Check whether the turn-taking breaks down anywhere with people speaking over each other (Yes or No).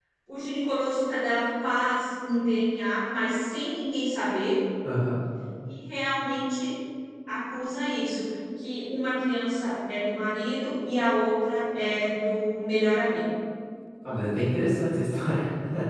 No